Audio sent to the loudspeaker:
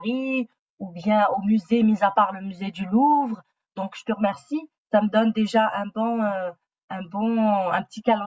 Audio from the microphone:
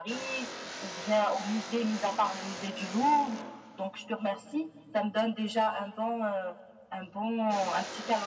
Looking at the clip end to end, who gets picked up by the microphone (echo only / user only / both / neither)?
echo only